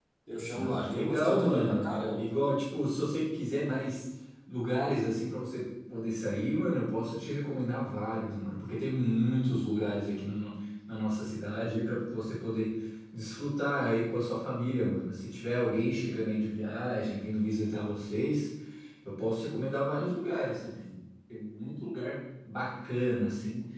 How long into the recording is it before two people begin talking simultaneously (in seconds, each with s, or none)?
0.5 s